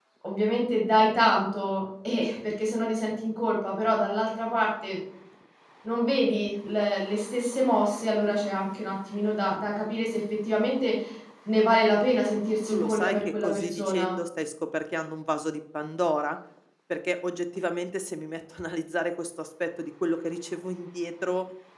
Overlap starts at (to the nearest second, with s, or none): 13 s